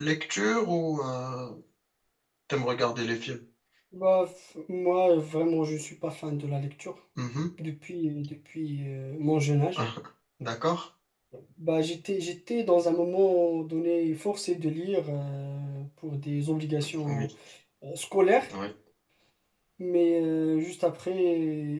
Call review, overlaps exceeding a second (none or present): none